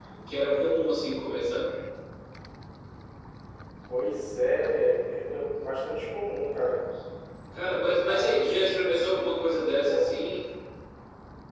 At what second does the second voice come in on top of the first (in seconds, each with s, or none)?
8.1 s